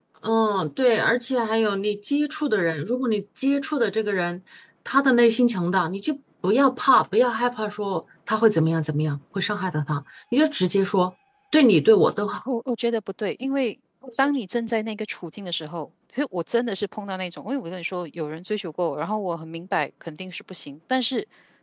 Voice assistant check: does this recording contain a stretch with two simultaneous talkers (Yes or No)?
No